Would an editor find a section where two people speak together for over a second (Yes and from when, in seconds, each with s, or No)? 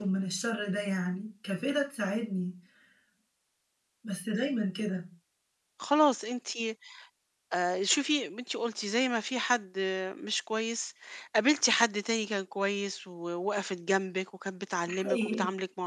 No